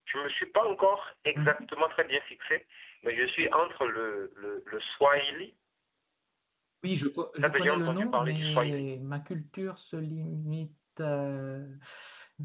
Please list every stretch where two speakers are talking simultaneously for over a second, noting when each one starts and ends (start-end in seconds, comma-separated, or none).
7.4-8.9